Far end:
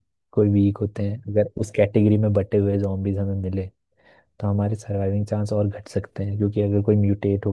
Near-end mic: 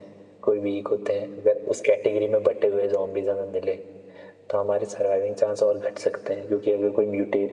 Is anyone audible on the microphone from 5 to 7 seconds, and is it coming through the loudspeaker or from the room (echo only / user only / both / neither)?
echo only